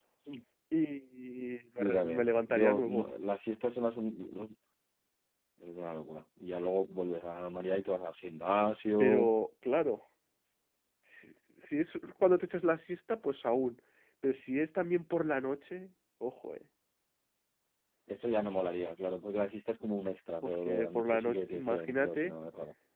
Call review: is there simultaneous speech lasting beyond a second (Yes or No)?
Yes